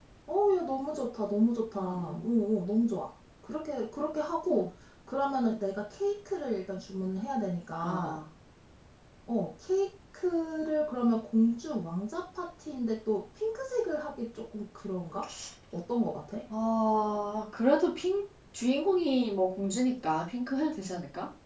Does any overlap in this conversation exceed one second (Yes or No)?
No